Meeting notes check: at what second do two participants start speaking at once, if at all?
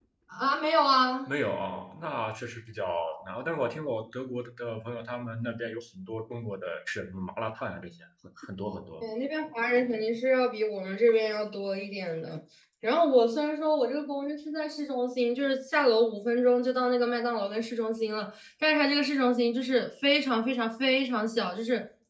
none

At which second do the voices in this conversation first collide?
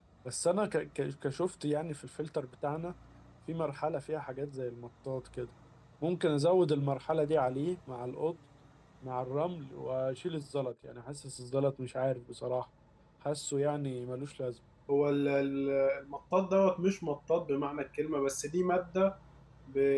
none

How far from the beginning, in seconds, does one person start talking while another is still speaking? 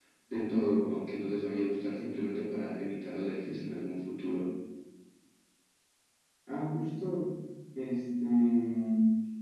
none

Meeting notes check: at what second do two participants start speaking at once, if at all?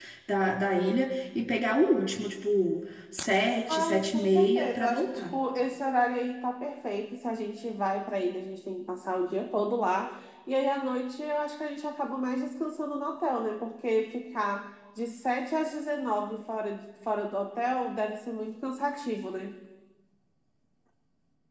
4 s

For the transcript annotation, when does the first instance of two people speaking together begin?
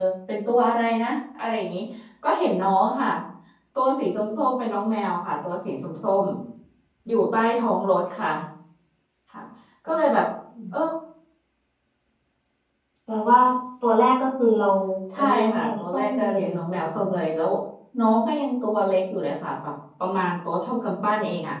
15 s

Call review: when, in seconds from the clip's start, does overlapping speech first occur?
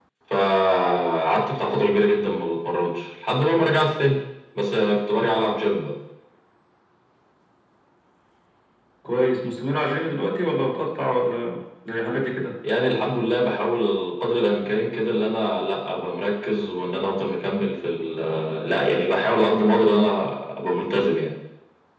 none

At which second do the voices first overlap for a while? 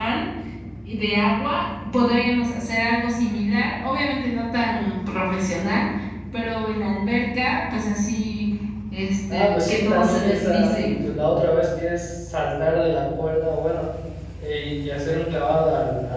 9 s

